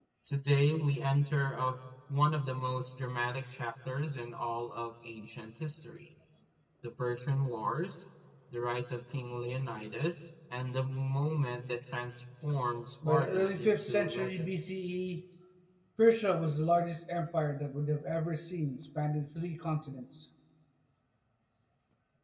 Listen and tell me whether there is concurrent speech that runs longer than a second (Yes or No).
Yes